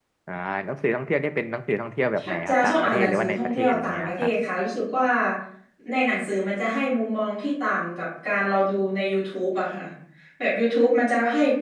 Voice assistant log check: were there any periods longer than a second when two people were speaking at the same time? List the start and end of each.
2.5-4.3

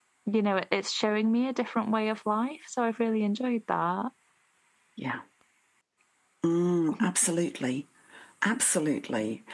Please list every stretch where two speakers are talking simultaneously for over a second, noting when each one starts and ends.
none

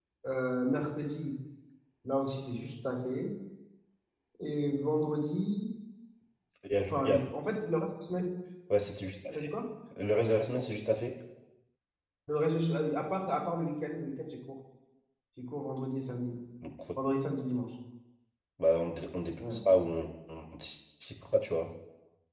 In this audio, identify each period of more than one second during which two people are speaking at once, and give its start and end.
none

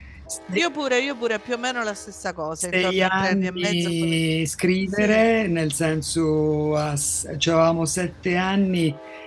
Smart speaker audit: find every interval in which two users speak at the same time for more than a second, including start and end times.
2.7-4.2

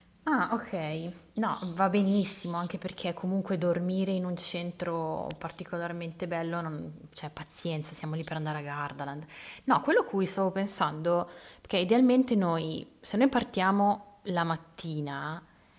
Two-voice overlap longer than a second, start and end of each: none

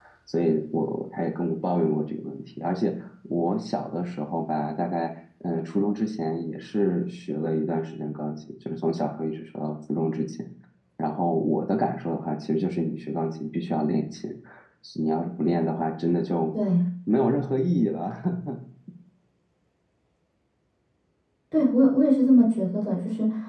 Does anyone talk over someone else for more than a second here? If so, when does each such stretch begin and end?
none

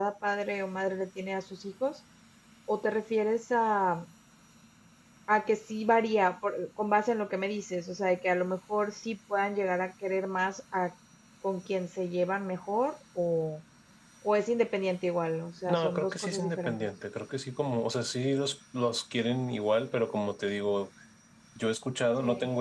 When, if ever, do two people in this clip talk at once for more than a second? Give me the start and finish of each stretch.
15.7-16.9

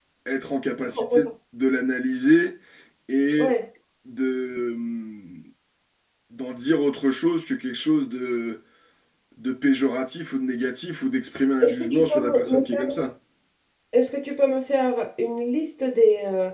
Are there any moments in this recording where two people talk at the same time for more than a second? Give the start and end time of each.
11.6-13.1

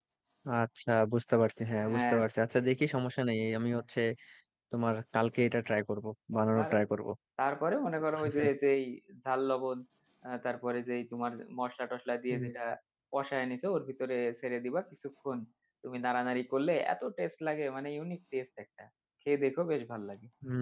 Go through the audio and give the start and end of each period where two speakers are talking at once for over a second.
none

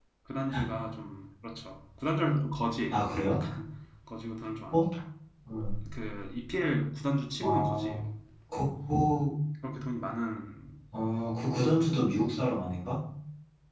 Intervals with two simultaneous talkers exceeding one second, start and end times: none

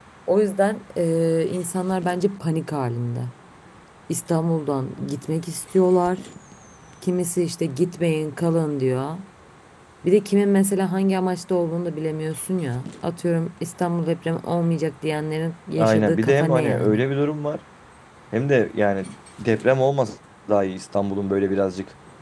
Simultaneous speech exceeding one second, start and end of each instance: 15.8-17.0

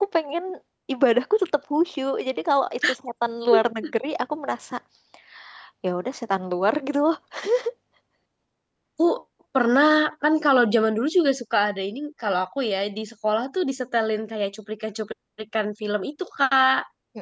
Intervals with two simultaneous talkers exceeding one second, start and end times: none

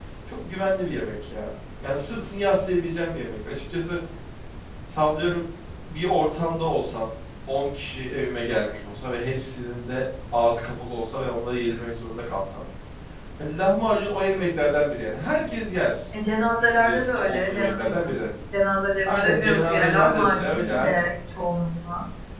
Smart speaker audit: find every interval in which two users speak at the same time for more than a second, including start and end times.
16.6-18.1, 19.1-21.1

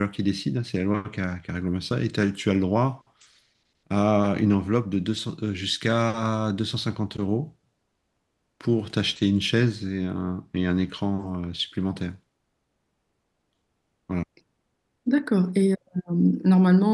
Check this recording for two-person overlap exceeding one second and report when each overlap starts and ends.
none

